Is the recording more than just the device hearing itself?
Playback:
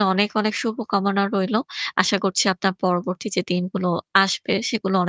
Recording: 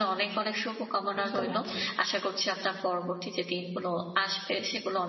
Yes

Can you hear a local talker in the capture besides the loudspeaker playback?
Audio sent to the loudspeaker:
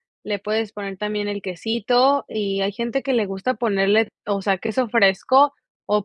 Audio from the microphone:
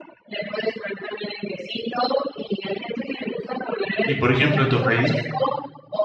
Yes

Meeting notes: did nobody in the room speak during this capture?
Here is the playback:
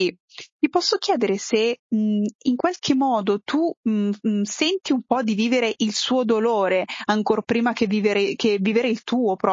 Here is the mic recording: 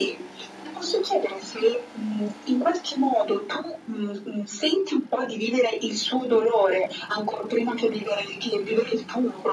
Yes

